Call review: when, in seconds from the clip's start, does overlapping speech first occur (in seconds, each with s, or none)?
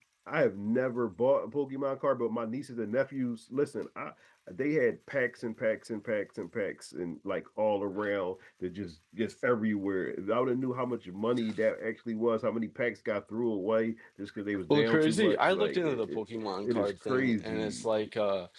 14.7 s